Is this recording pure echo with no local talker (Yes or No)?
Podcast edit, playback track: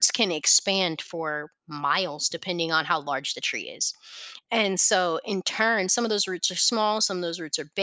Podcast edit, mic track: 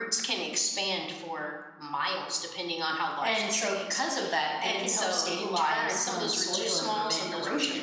No